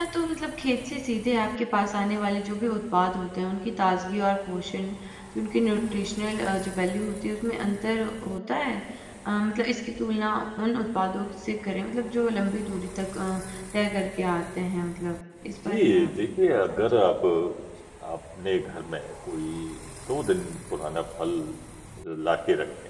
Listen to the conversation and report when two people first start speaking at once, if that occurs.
15.7 s

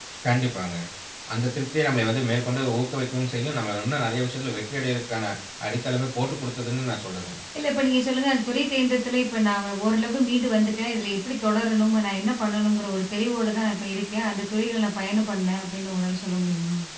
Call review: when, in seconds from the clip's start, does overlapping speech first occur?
none

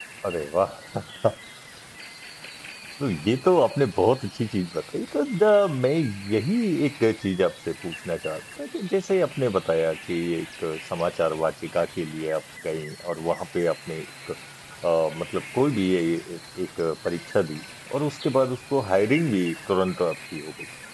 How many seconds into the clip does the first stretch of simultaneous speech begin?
none

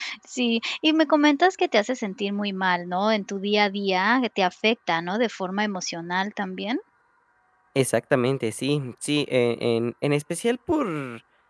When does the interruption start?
none

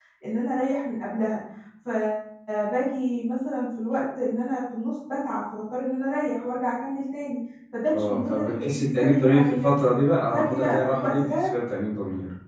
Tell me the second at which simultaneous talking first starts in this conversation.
7.9 s

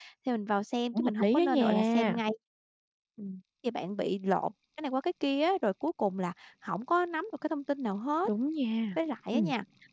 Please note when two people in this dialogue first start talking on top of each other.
0.9 s

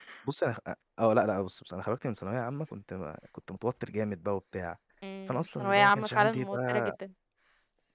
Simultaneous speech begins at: 5.3 s

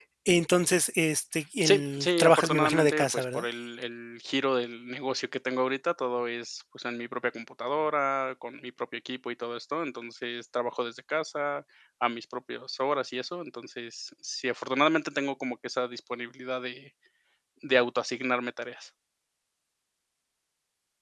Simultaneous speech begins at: 1.6 s

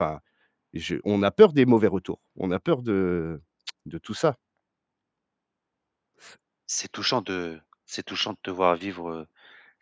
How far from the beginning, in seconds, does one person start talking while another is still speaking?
none

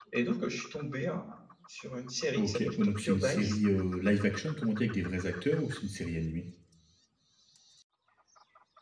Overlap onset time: 2.4 s

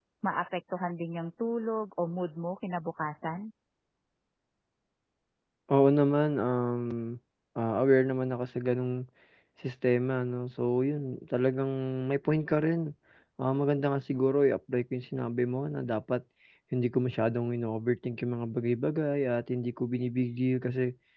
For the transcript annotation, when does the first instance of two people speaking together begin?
none

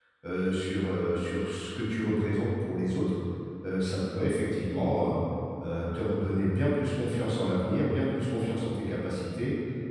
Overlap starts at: none

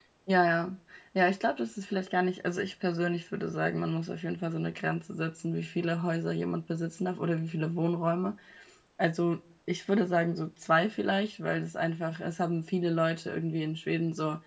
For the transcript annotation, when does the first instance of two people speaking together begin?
none

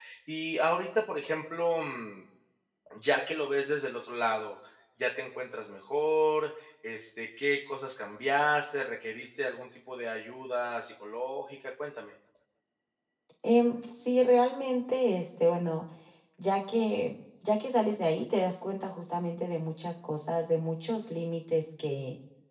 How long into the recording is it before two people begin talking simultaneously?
none

